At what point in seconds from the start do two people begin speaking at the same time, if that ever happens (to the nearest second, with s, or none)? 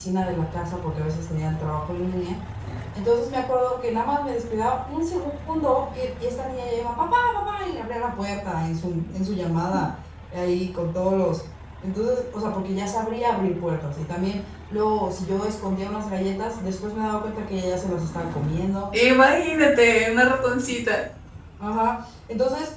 none